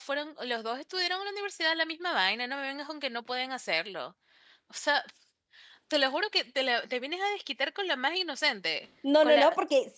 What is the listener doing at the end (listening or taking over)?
taking over